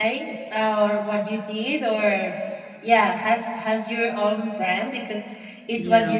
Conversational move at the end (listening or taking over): listening